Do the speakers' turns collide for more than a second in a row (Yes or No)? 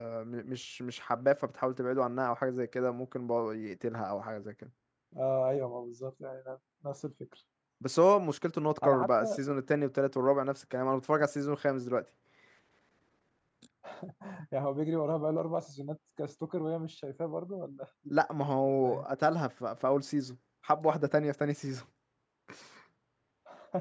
No